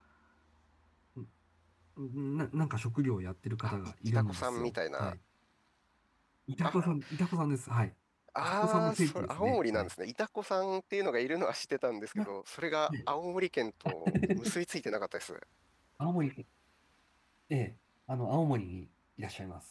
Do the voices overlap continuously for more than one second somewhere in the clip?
Yes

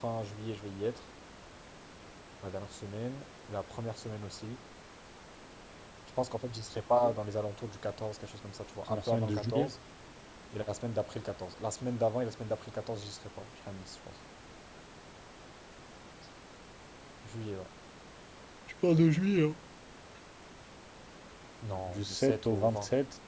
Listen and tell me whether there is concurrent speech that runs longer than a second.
Yes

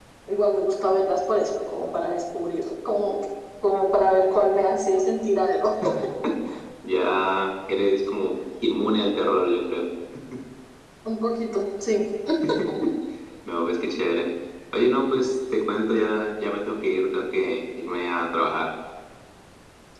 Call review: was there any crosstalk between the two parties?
No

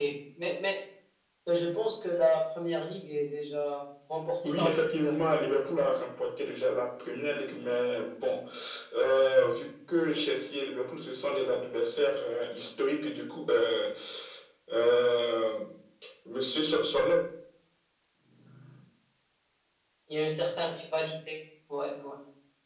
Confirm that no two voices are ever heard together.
No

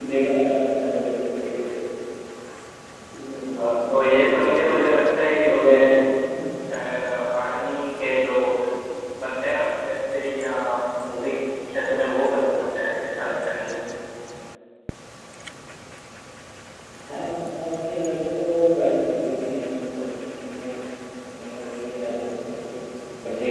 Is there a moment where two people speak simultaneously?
Yes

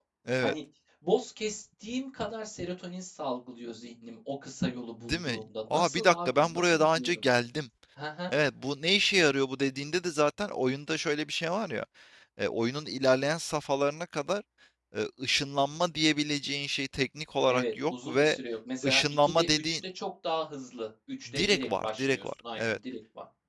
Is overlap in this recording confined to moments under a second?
No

